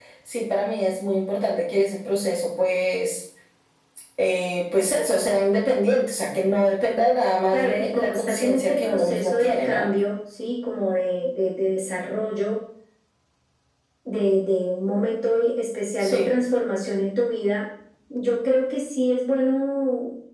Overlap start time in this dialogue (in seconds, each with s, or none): 7.5 s